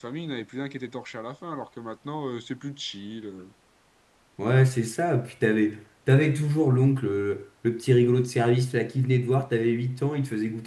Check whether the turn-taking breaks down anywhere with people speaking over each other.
No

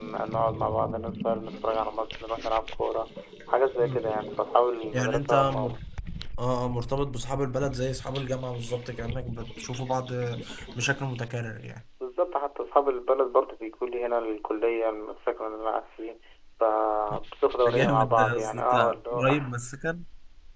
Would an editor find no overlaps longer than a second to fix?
No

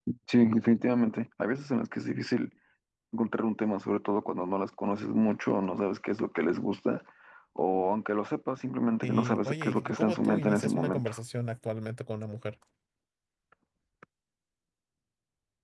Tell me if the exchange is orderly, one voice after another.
No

